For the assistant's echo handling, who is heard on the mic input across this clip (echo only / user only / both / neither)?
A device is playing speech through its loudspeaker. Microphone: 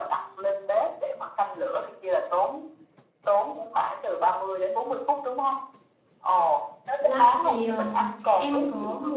both